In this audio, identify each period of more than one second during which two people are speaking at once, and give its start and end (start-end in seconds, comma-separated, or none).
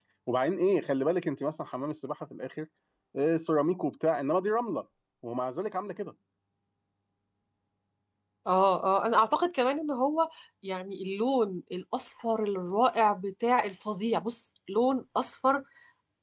none